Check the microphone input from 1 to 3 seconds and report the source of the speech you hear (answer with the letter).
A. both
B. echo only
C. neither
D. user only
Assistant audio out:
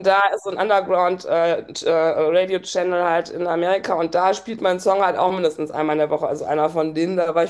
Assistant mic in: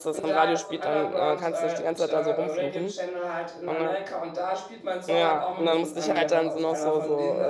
A